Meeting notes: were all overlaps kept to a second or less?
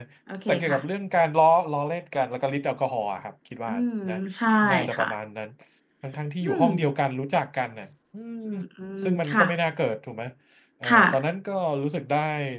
Yes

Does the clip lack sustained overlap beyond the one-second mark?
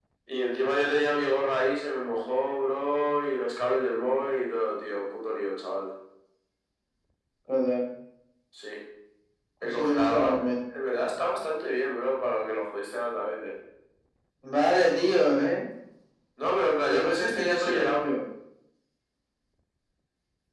No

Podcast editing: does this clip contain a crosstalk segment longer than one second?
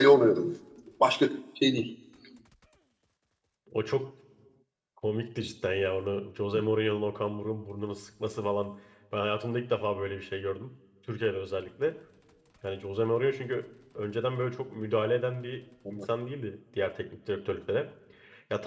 No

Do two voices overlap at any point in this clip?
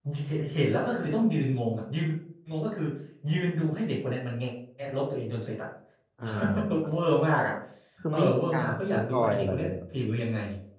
Yes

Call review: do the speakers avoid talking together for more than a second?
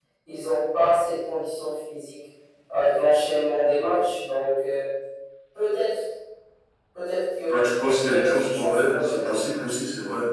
No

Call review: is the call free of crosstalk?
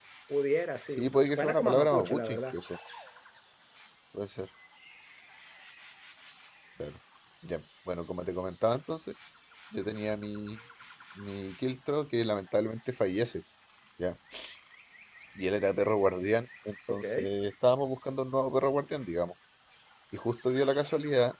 No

